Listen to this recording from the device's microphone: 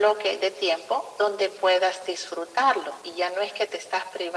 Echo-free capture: No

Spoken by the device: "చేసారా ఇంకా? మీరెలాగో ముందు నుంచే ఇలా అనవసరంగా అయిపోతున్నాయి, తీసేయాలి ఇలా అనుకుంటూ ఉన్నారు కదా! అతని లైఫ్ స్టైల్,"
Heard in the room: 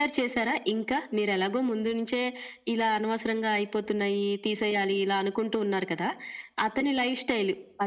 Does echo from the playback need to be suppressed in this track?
Yes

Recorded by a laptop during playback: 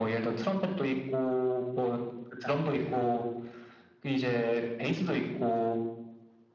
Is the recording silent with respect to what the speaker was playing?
No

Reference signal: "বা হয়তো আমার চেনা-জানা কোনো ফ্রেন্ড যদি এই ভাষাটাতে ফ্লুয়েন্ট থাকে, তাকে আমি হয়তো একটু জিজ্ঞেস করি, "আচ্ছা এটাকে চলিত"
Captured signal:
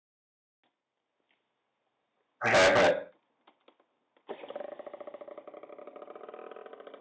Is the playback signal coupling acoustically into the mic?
No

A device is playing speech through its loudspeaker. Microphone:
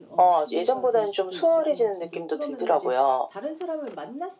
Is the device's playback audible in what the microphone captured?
Yes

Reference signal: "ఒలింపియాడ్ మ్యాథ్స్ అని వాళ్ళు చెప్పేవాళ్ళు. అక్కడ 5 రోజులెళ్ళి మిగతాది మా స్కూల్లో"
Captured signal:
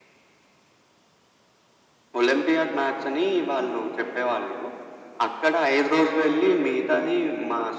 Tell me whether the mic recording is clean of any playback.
No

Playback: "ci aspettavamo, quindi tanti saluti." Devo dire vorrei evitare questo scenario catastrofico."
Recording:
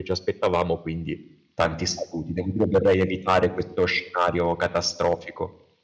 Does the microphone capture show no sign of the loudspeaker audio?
No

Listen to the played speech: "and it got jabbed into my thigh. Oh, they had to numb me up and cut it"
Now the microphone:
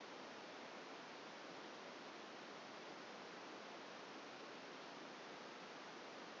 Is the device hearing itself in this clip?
No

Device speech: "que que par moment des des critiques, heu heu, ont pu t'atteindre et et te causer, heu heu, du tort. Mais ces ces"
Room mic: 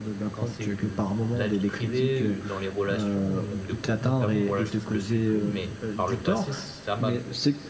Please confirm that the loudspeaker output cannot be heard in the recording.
No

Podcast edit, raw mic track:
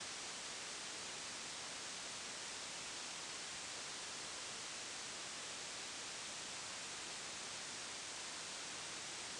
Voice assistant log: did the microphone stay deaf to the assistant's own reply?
Yes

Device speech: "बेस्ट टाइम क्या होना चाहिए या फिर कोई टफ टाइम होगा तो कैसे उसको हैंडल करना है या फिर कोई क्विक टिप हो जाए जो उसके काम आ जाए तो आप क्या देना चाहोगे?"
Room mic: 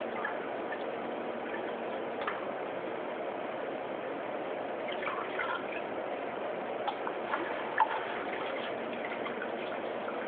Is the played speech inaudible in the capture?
Yes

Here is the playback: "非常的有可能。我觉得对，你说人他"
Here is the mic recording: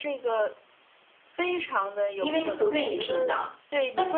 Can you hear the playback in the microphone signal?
Yes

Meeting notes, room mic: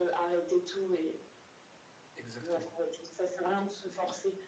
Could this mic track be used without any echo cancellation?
No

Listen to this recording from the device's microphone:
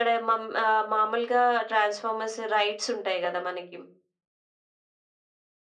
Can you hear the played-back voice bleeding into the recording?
Yes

